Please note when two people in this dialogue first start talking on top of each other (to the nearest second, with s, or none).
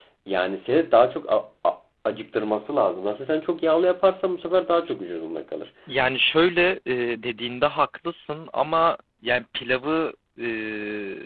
none